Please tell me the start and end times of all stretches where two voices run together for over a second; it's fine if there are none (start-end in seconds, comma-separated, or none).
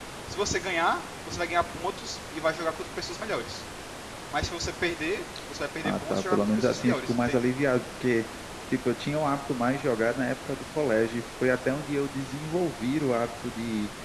5.8-7.4